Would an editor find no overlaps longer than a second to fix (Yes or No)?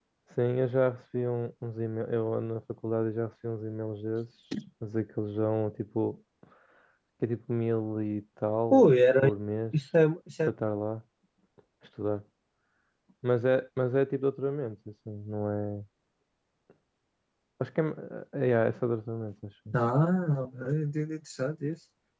Yes